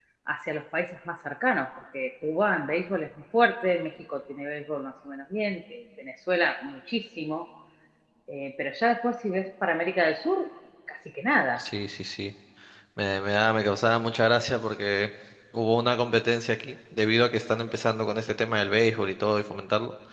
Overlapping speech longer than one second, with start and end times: none

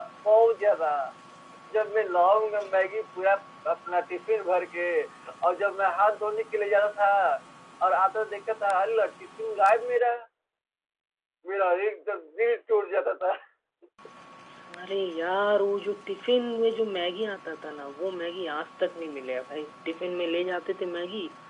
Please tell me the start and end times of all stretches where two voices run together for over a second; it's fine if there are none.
none

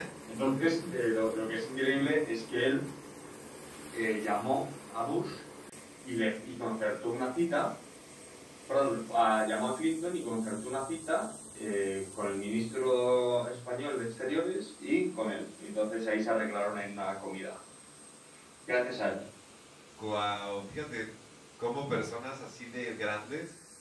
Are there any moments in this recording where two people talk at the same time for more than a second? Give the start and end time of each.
none

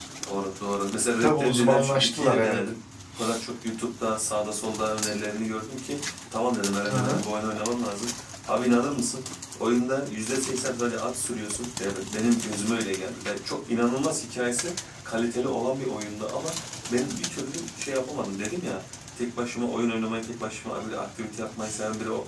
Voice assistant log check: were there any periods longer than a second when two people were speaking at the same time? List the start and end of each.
1.2-2.6

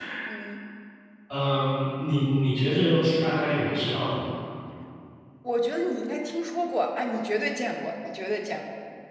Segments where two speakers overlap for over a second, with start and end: none

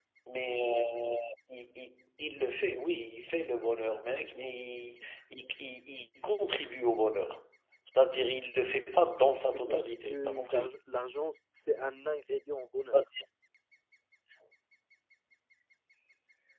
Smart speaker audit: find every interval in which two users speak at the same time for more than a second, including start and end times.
9.5-10.7

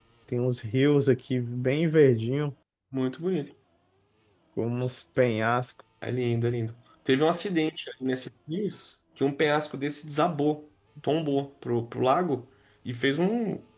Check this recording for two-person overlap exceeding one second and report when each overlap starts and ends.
none

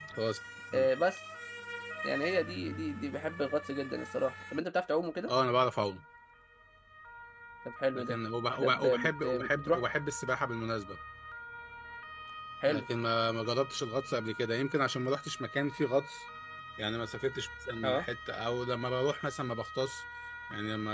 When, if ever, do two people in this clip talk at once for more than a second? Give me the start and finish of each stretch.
8.6-9.8

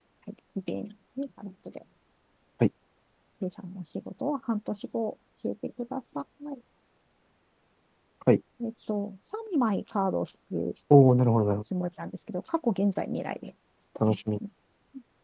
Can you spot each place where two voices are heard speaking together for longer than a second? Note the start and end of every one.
none

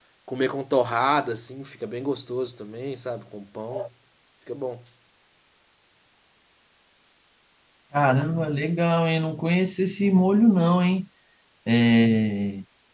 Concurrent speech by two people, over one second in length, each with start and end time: none

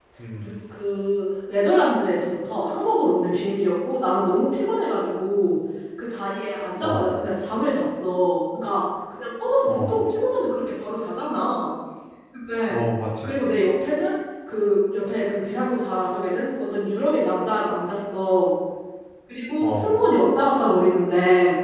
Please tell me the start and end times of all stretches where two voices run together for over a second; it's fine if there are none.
none

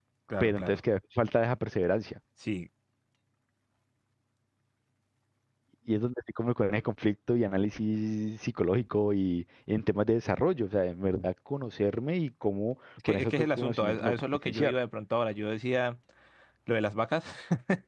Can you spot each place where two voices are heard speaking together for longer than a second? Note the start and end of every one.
13.1-14.8

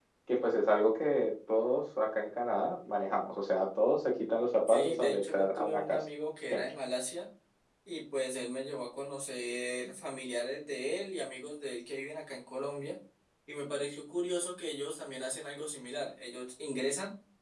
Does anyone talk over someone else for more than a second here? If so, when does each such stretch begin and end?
4.7-6.0

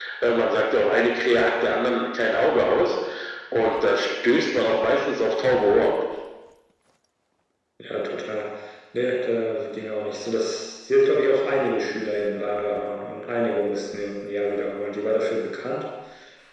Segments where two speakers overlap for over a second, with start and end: none

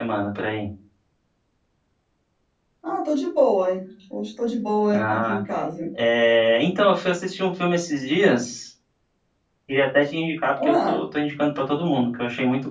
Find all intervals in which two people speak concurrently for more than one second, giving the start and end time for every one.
none

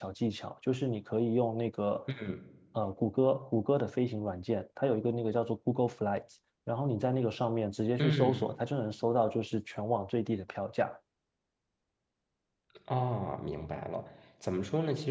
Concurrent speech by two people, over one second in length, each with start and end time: none

